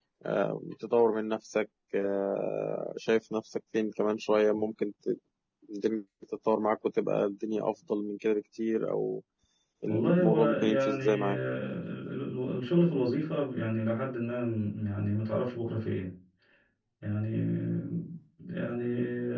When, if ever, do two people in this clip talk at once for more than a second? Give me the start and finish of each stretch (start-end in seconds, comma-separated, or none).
9.9-11.4